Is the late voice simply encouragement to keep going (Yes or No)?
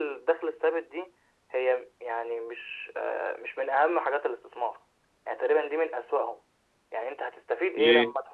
Yes